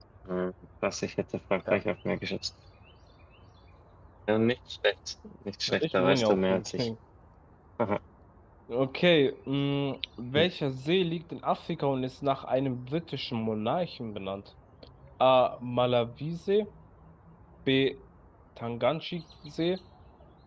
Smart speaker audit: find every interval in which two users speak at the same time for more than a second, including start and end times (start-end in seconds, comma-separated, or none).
5.7-6.9